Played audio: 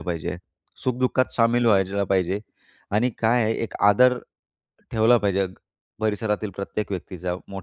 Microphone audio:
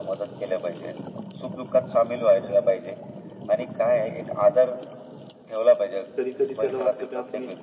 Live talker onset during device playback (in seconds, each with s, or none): 6.2 s